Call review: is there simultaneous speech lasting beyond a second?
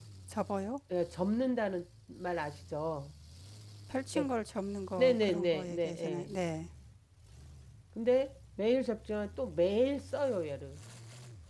Yes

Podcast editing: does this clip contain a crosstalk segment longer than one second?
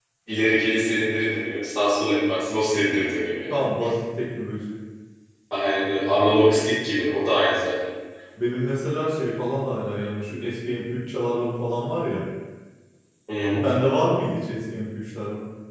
No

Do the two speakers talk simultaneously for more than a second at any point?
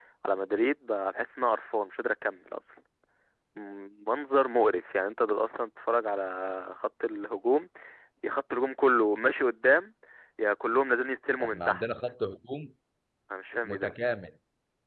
No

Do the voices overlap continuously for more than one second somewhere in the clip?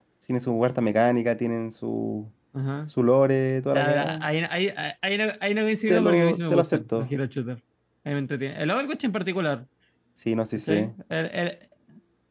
Yes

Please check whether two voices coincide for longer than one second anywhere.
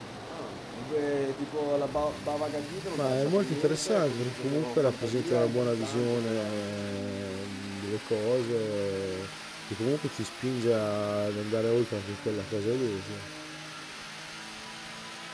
Yes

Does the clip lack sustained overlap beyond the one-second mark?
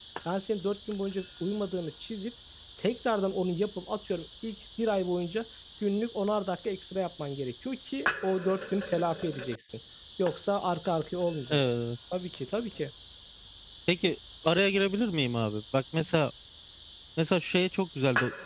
Yes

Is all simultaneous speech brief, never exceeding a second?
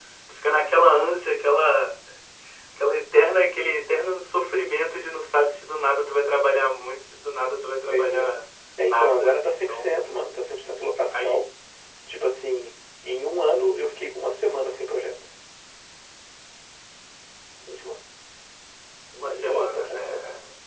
No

